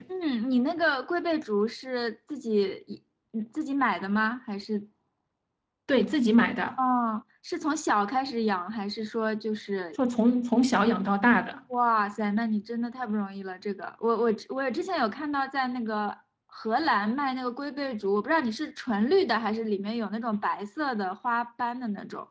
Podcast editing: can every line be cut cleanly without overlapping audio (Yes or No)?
Yes